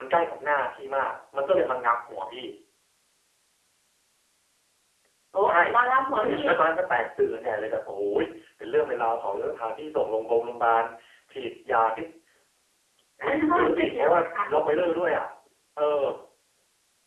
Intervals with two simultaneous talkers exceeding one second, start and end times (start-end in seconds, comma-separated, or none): 13.2-14.4